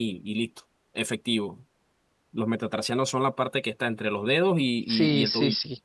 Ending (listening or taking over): taking over